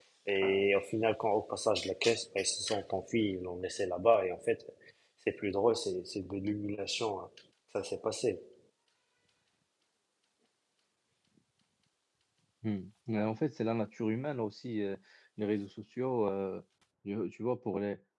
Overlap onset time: none

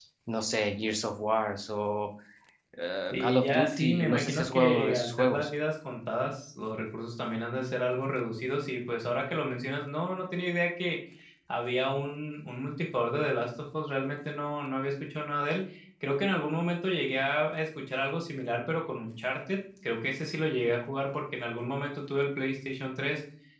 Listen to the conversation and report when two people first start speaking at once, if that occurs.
3 s

